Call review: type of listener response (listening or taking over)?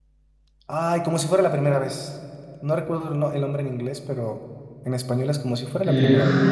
taking over